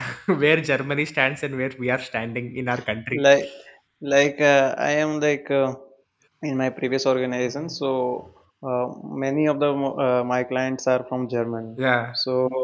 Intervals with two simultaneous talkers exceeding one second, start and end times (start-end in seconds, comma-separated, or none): none